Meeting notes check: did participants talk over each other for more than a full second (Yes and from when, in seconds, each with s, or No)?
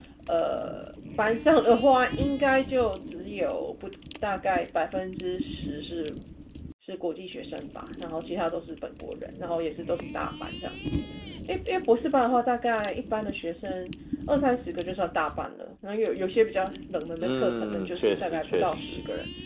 Yes, from 17.2 s